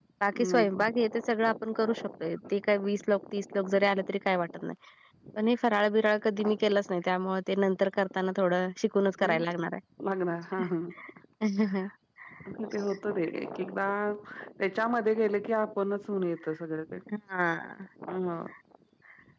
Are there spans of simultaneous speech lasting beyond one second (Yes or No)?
No